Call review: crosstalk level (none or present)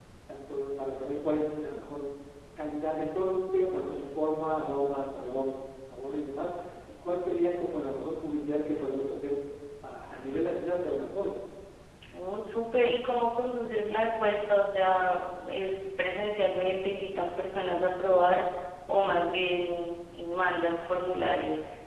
none